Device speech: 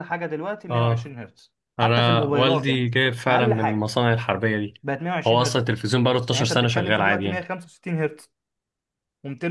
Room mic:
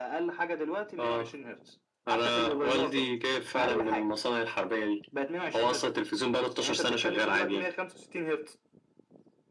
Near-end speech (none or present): none